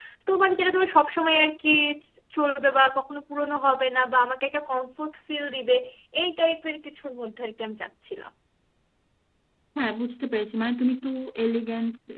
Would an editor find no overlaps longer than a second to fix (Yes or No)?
Yes